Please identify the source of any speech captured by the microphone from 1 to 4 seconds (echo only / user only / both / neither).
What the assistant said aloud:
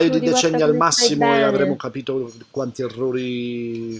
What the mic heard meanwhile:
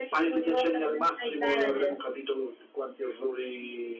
echo only